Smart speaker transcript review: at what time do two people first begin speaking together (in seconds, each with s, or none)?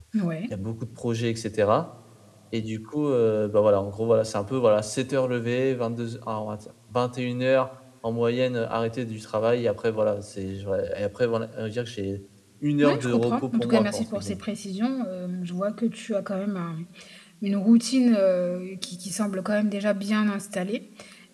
12.8 s